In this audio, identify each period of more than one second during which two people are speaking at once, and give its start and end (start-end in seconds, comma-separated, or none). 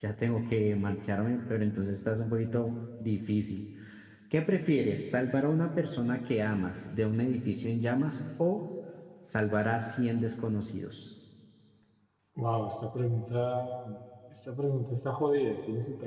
none